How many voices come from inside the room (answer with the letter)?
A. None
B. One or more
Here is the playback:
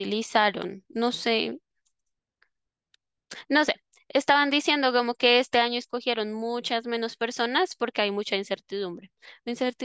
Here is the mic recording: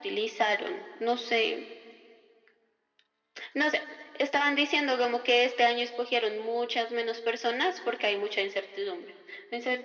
A